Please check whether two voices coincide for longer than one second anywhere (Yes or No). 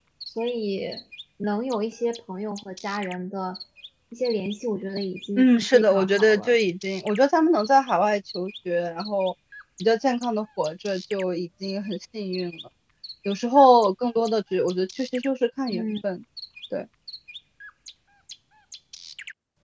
Yes